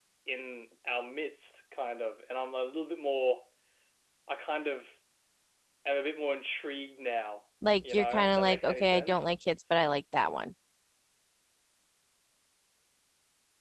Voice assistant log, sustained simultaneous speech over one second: present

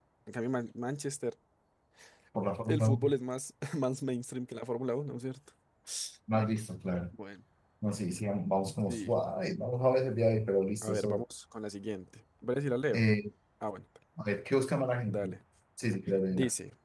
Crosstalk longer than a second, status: none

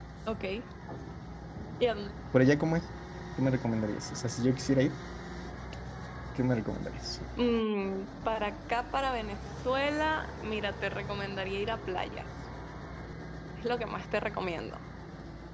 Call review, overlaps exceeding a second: none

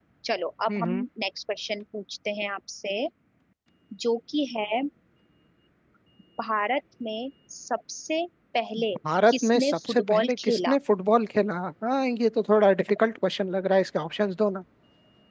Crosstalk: present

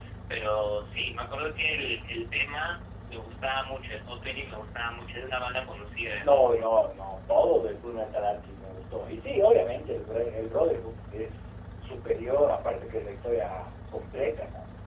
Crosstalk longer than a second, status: none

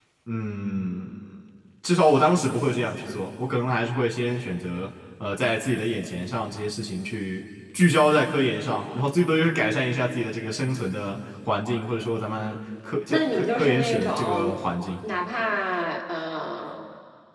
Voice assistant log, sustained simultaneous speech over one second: present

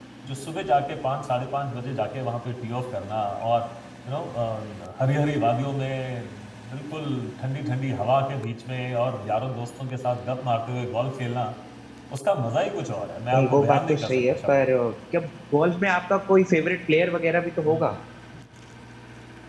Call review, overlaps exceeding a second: present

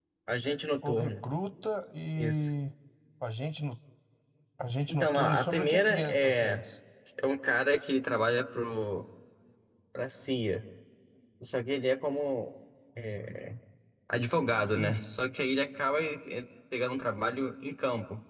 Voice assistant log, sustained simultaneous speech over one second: present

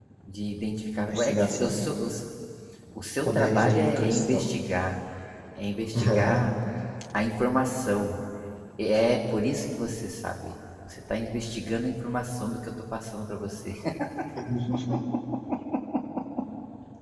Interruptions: present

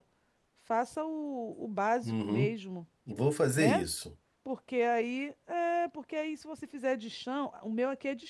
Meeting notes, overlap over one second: none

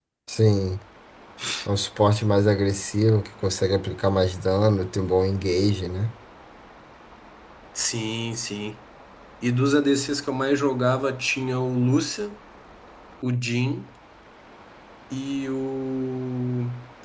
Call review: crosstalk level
none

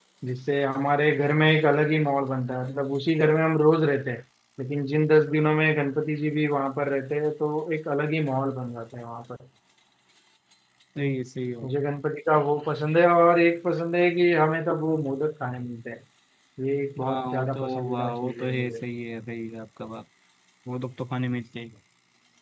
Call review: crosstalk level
present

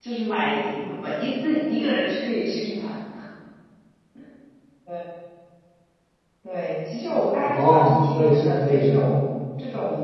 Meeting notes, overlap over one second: present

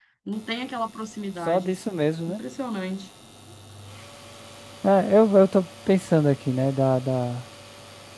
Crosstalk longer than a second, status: none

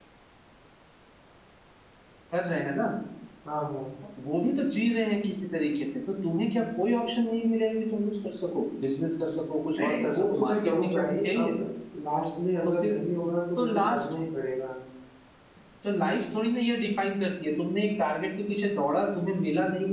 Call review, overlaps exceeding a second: present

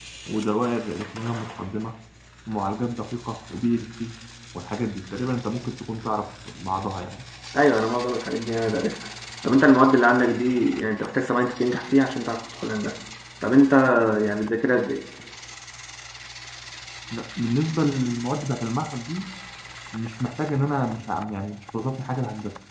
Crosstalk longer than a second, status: none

